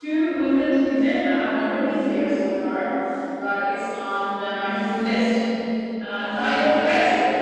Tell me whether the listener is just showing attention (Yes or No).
No